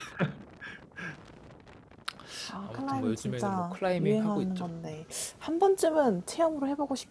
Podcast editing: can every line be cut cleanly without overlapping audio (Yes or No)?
No